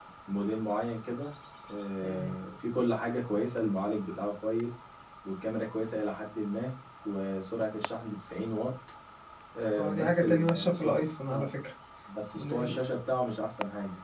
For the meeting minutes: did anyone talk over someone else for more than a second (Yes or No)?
Yes